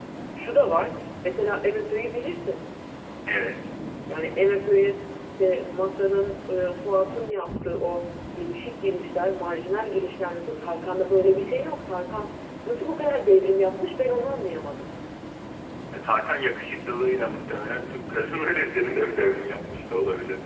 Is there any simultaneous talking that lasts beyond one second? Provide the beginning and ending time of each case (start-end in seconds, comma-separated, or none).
none